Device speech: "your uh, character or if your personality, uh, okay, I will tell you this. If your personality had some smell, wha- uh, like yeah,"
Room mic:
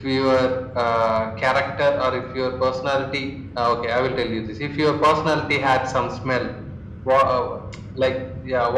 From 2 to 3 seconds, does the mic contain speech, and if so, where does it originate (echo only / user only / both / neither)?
echo only